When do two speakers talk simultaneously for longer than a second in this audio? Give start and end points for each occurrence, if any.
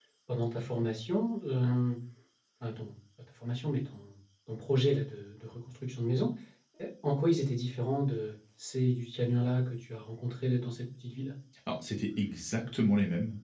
none

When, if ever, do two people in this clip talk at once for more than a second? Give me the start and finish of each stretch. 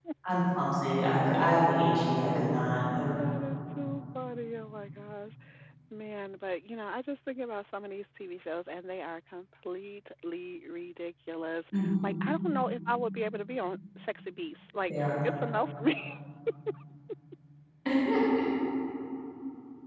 none

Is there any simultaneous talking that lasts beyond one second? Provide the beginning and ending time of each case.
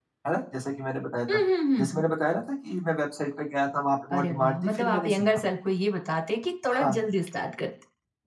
4.1-5.4

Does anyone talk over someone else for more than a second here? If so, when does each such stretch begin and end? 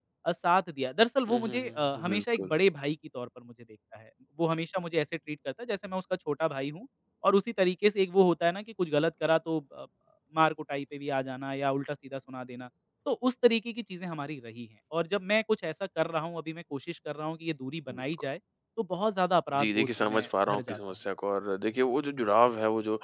1.3-2.5, 19.6-20.8

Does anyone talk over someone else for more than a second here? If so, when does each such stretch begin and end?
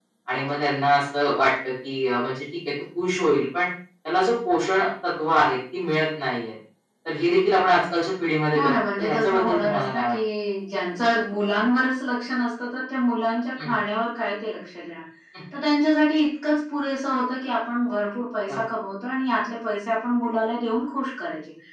8.5-10.2

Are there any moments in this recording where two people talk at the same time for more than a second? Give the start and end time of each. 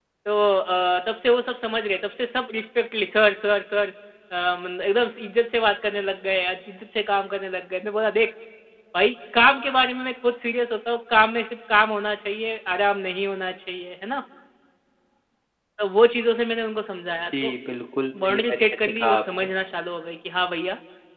18.2-19.5

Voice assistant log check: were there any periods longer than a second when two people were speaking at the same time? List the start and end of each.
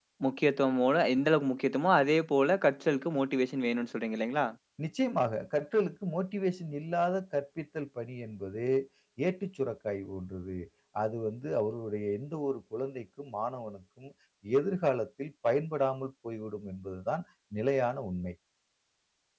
none

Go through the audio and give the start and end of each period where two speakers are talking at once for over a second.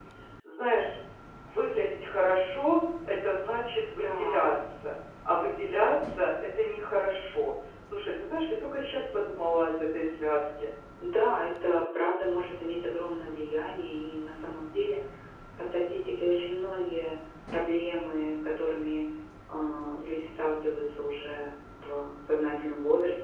none

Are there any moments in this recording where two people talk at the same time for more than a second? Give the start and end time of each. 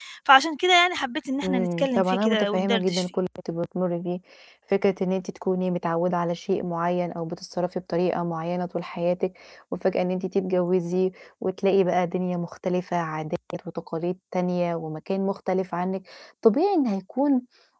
1.4-3.0

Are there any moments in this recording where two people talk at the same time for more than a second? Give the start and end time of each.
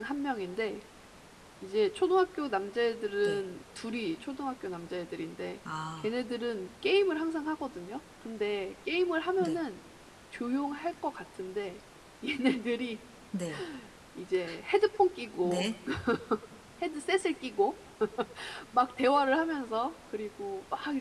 none

